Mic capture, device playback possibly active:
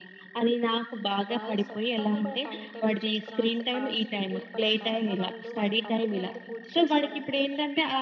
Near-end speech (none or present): present